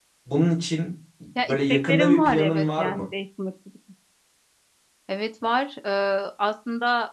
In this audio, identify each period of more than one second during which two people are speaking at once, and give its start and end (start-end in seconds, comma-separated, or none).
1.5-3.0